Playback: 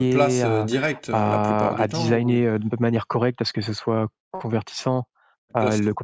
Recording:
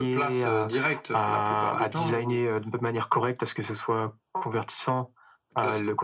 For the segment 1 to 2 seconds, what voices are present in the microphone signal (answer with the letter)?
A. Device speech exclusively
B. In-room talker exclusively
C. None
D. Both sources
A